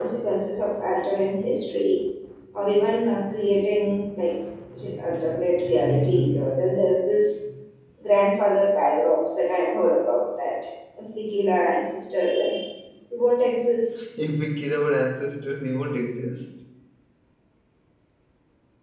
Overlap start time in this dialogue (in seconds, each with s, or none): none